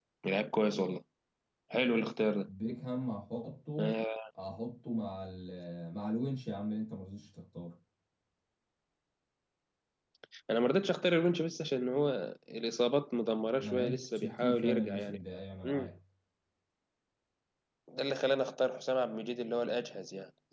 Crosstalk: present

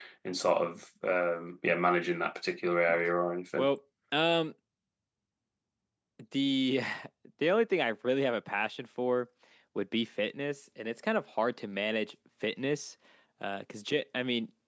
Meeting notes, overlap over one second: none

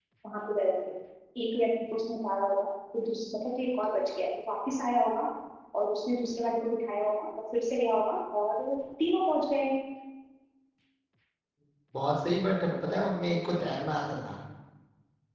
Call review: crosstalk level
none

